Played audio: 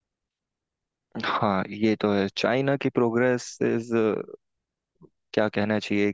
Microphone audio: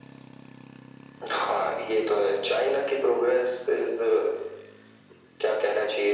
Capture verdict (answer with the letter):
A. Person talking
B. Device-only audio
B